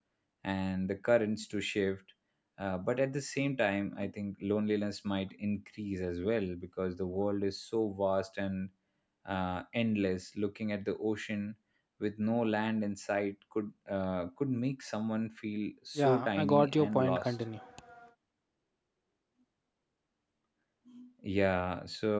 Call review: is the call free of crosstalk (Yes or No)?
No